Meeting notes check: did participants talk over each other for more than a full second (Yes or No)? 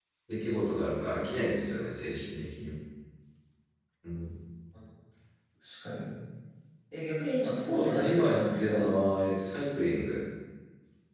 Yes